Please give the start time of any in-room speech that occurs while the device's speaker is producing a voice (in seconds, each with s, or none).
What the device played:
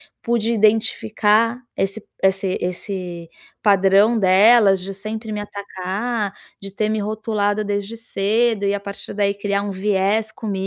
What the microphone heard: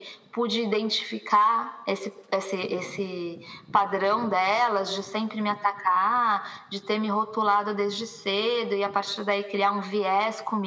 none